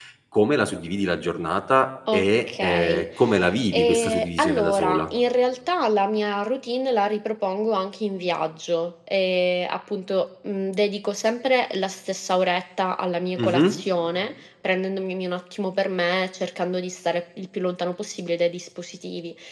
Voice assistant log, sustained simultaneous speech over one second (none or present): present